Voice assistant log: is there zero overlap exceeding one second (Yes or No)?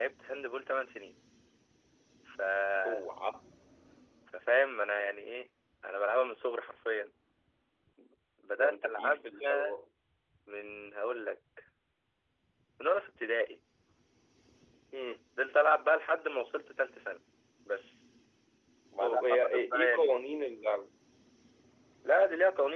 No